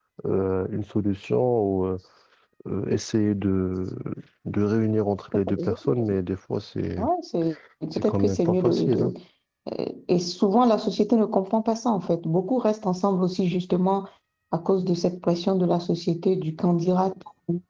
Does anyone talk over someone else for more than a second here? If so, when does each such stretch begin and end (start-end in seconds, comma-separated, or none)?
7.9-9.1